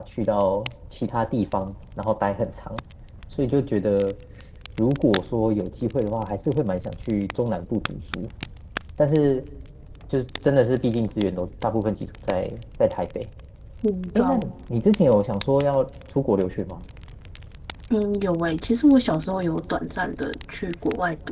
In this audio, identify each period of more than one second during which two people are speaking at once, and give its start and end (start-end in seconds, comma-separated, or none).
none